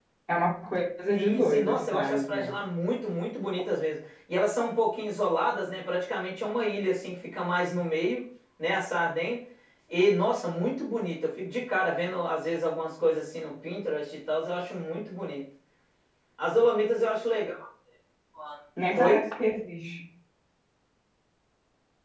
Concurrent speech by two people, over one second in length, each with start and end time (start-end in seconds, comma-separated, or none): 1.1-2.5